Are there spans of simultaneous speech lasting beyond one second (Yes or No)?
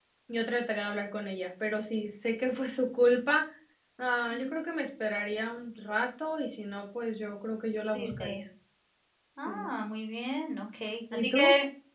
No